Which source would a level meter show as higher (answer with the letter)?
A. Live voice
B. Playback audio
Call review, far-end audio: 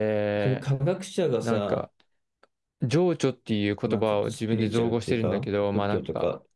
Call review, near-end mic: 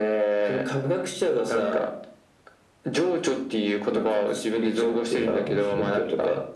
B